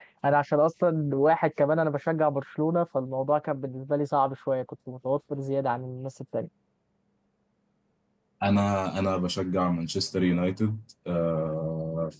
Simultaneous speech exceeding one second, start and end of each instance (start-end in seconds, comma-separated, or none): none